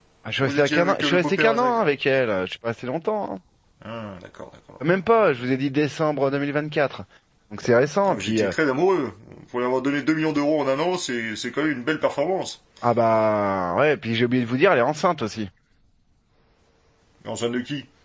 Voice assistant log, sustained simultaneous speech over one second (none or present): present